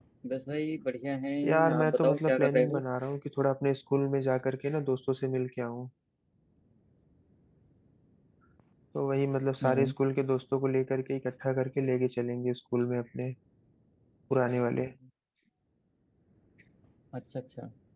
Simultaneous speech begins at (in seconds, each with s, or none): 1.4 s